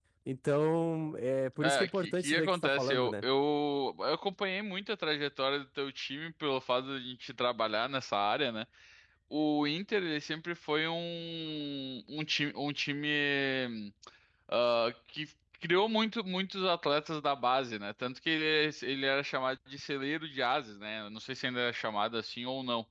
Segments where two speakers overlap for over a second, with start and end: 1.6-3.2

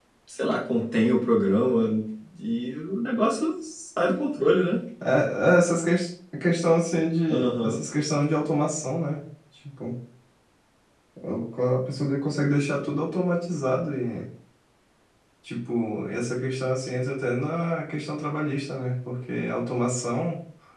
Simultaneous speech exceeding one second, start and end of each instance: none

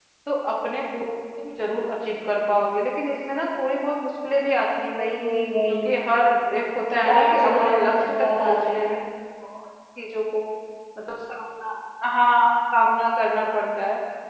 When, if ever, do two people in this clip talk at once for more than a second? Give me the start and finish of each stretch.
6.9-8.9

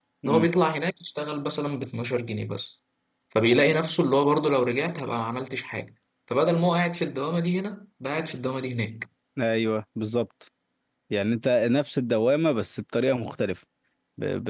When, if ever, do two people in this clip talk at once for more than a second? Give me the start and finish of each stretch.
none

